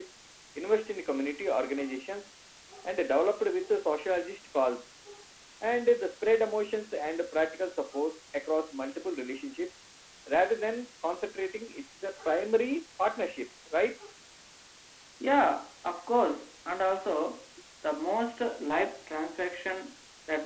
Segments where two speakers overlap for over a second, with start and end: none

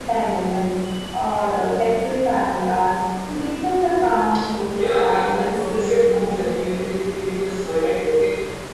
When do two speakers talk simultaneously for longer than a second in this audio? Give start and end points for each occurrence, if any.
4.8-6.7

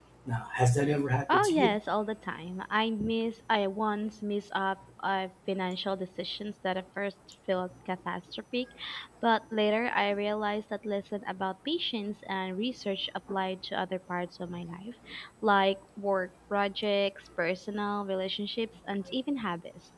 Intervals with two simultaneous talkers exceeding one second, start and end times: none

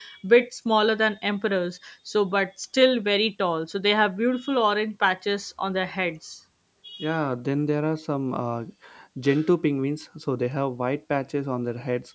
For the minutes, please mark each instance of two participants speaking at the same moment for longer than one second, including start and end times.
none

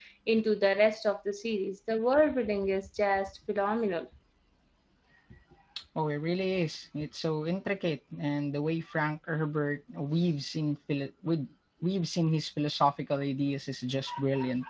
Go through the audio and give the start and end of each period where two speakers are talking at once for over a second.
none

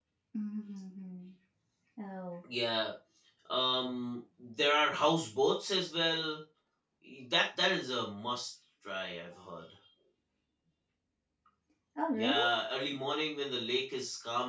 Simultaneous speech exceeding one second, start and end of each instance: none

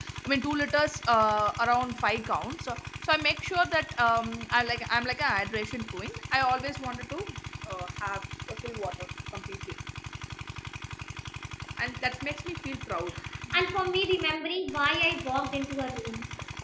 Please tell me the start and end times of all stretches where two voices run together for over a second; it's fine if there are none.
none

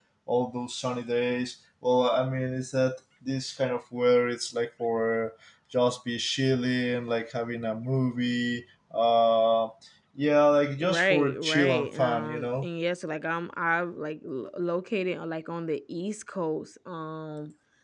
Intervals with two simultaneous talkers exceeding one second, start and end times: 10.8-12.7

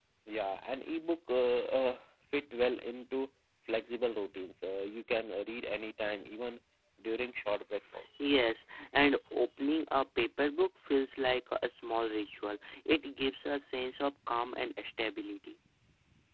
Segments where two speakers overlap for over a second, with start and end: none

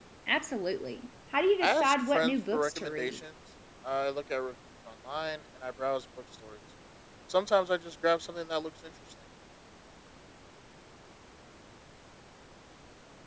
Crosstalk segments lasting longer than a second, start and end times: 1.6-3.2

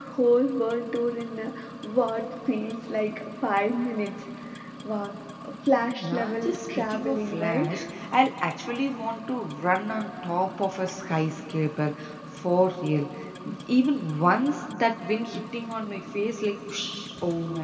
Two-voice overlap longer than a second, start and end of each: 6.0-7.7

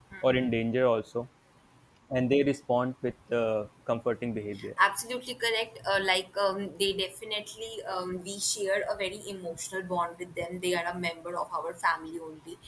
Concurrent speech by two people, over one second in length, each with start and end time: none

